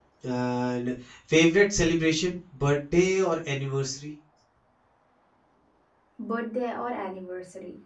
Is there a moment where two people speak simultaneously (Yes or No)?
No